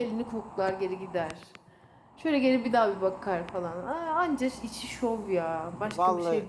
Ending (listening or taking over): taking over